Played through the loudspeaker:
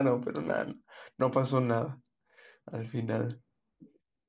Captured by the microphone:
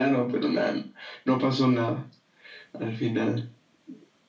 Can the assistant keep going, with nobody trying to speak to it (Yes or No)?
Yes